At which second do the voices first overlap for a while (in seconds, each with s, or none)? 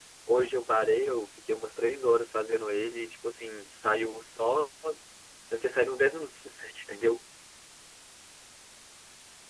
none